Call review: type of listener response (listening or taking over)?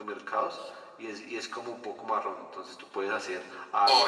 taking over